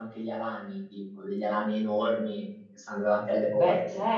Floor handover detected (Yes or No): Yes